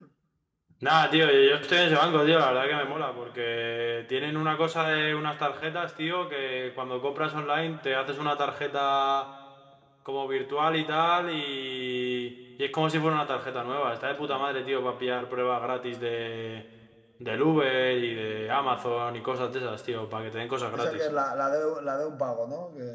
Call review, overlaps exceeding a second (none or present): none